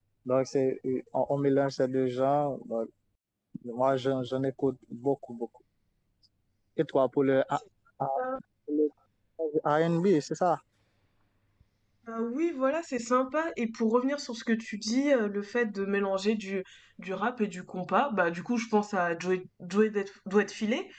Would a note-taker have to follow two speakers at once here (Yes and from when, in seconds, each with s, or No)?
No